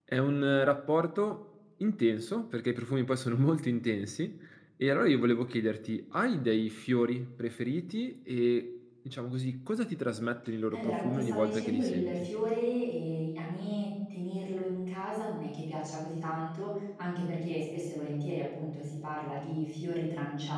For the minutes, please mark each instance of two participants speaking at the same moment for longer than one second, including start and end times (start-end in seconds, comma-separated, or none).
10.7-12.3